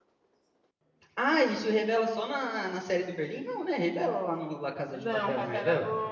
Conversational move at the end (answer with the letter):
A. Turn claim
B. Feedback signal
A